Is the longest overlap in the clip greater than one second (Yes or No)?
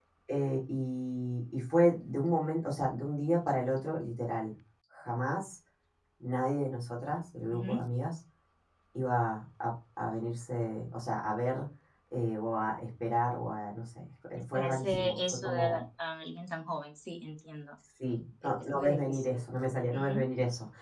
Yes